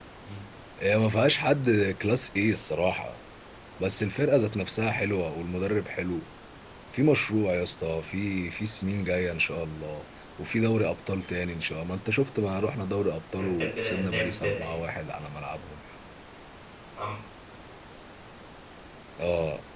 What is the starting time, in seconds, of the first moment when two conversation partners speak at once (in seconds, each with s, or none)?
13.4 s